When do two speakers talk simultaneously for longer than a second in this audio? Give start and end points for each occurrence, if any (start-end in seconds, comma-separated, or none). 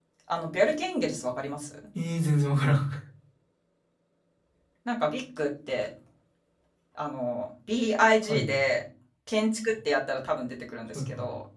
none